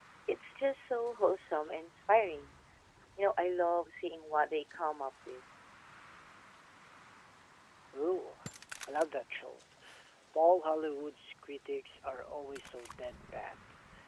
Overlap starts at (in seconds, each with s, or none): none